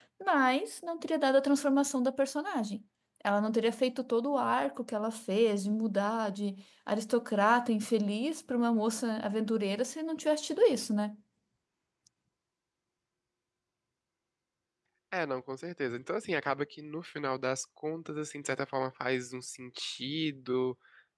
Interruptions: none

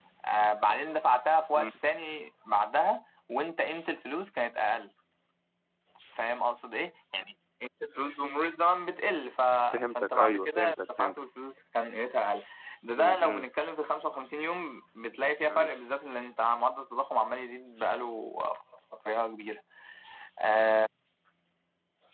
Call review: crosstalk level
present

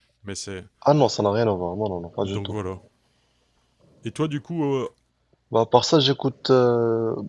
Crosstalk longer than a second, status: none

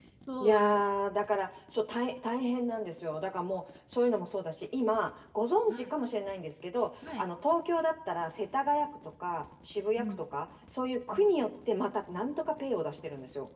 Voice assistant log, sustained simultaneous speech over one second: none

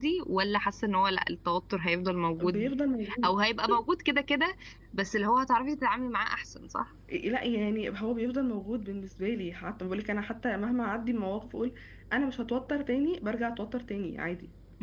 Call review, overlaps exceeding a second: none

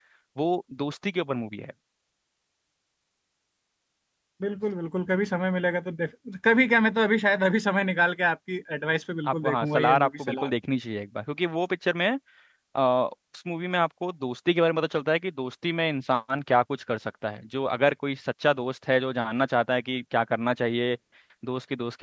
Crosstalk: present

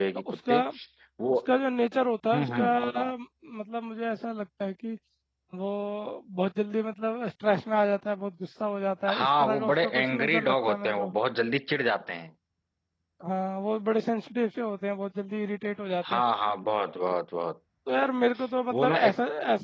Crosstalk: present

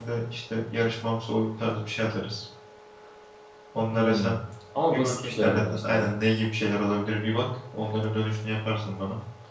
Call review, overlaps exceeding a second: present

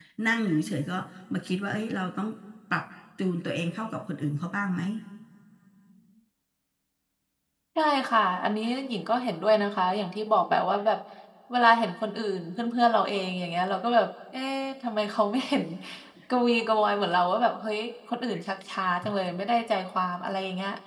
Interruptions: none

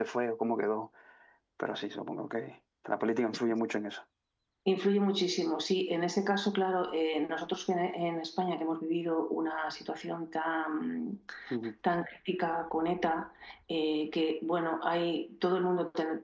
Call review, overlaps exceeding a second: none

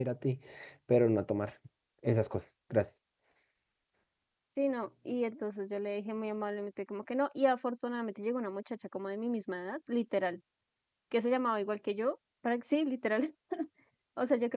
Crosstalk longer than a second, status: none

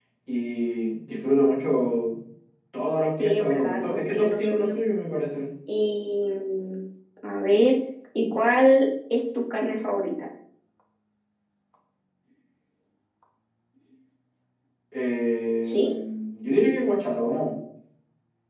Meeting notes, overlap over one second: present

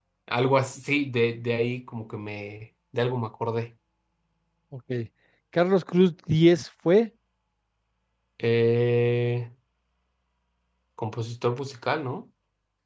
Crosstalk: none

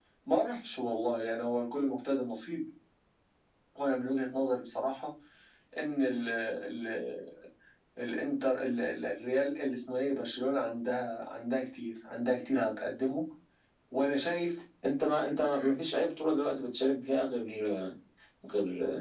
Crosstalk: none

